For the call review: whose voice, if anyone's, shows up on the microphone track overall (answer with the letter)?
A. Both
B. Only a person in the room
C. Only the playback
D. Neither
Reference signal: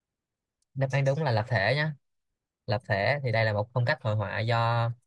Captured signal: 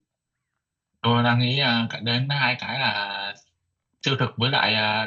B